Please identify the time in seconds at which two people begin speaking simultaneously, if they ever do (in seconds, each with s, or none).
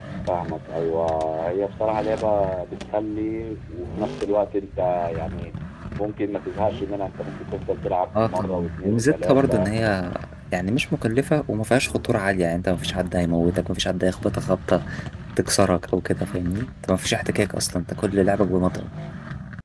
8.1 s